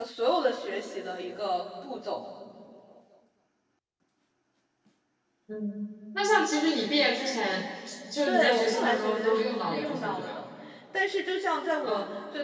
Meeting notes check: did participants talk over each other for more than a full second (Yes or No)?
Yes